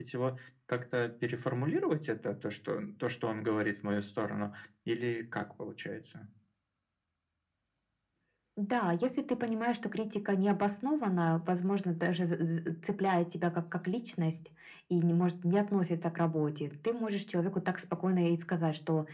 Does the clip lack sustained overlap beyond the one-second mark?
Yes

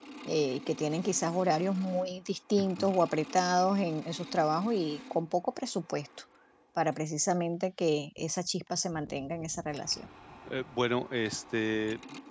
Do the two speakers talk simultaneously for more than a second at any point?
No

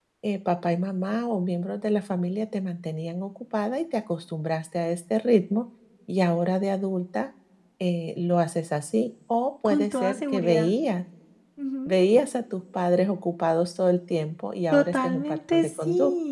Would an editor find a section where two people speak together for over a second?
Yes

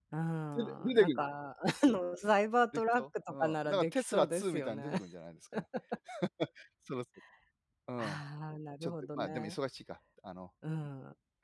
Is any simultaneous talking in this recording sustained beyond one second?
Yes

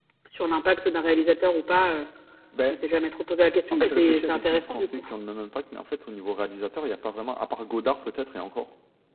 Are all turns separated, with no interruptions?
No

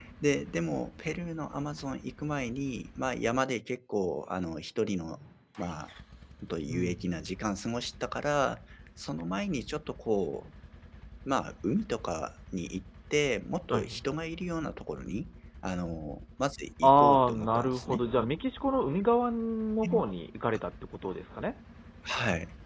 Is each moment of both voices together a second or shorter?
No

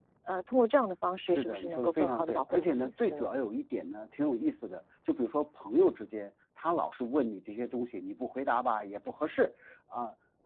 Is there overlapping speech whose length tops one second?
Yes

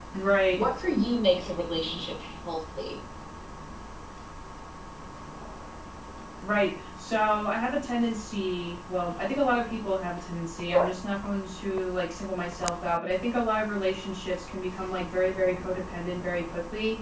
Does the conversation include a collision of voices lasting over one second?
No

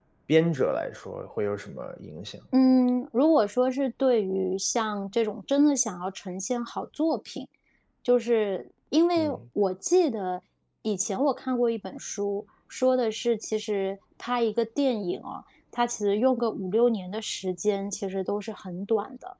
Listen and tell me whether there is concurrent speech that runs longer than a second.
No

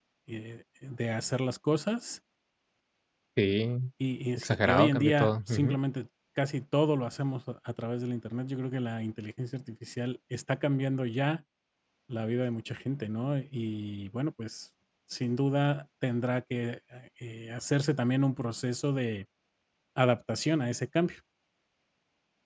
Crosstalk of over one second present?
Yes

